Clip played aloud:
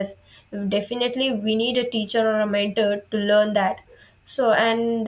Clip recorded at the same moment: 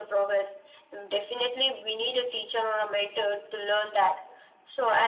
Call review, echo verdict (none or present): present